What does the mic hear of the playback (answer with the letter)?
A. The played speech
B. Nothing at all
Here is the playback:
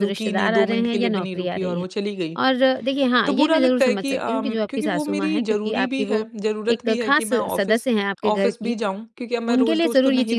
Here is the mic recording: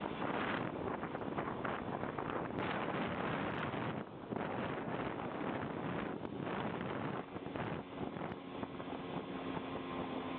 B